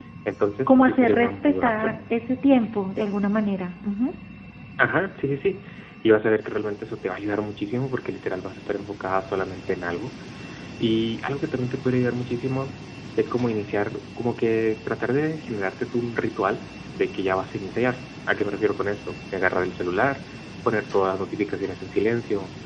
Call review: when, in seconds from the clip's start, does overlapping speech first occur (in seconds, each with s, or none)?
0.7 s